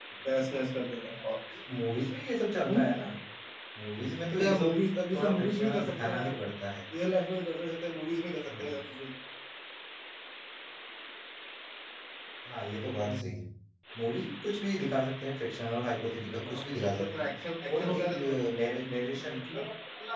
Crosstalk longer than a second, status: present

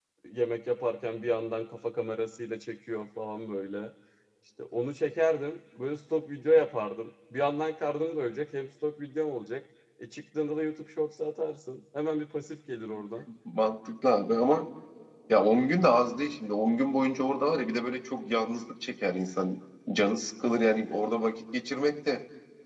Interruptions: none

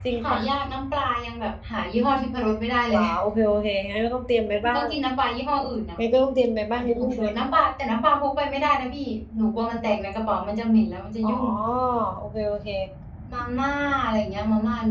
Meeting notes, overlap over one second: none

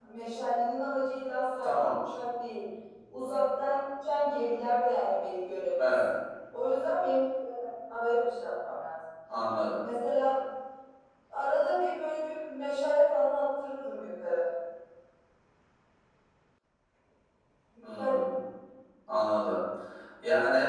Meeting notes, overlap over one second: none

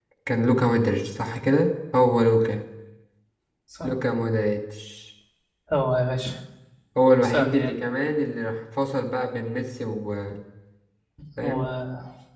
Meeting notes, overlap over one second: none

